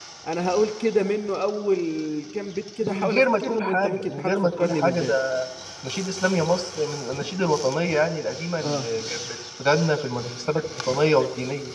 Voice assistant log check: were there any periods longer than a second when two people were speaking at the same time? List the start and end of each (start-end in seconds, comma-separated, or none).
2.8-5.1